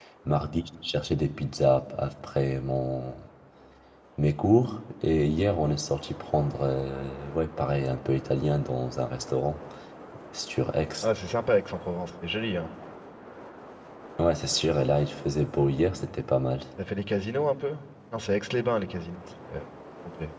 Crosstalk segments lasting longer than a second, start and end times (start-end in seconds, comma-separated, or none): none